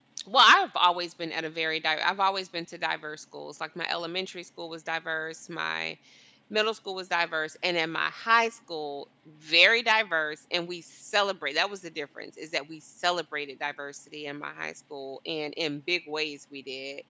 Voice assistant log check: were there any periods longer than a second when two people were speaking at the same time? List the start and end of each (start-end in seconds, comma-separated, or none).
none